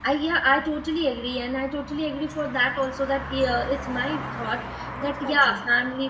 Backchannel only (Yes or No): Yes